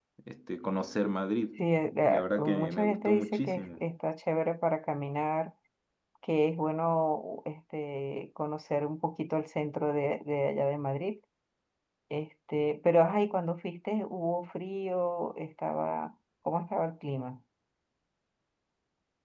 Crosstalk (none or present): present